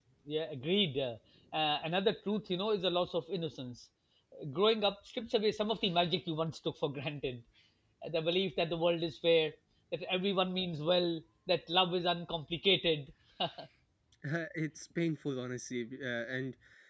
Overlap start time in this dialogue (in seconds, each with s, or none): none